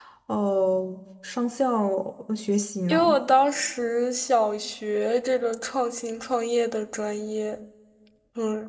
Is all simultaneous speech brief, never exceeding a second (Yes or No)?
Yes